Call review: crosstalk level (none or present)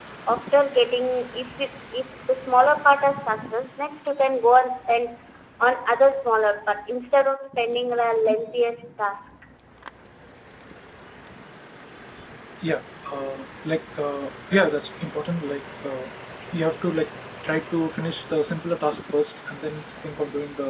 none